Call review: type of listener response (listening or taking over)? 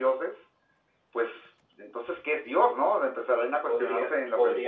taking over